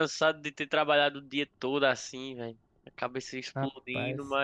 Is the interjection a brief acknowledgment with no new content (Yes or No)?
Yes